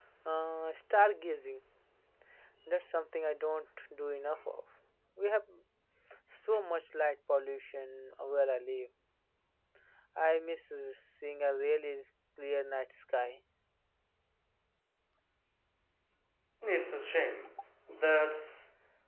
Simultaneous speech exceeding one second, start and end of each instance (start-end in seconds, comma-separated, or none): none